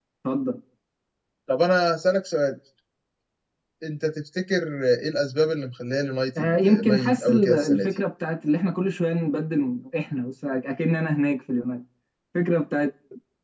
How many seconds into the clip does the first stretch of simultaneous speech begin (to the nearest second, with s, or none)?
6 s